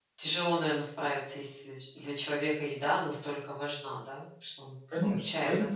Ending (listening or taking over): taking over